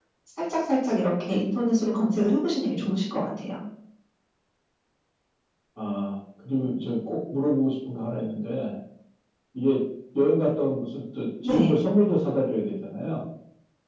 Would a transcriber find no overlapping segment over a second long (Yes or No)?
Yes